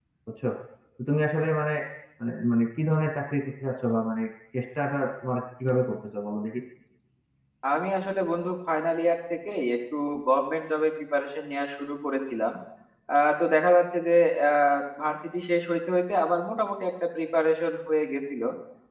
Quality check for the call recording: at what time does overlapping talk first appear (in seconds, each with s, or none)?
none